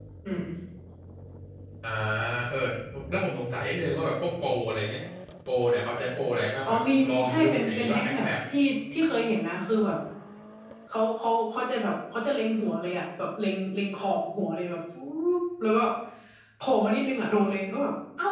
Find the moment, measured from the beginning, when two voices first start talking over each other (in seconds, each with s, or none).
6.6 s